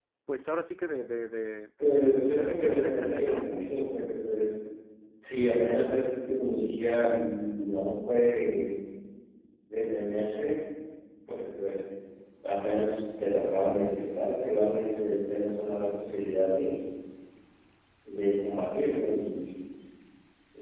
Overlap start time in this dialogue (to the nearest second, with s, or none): 2 s